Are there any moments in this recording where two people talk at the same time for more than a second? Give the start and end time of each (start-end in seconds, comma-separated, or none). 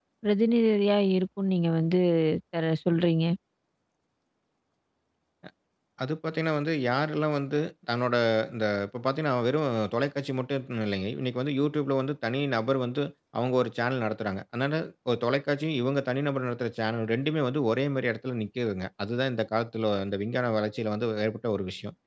none